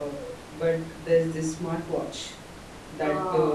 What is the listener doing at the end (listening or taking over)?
listening